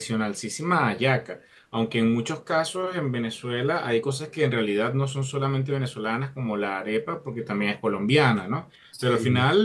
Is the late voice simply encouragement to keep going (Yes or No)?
Yes